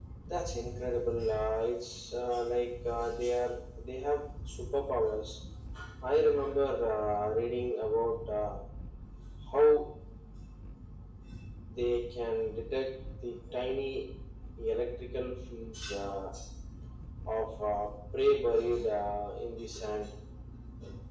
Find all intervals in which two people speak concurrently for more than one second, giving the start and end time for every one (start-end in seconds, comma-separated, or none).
none